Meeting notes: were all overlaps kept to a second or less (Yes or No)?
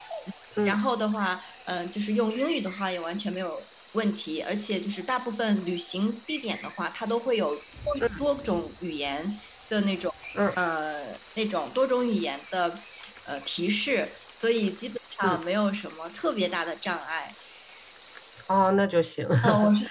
Yes